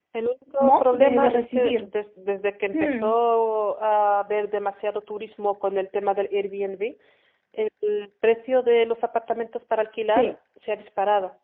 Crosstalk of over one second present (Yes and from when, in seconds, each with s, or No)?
Yes, from 0.6 s